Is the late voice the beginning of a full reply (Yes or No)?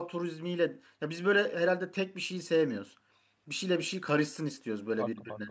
Yes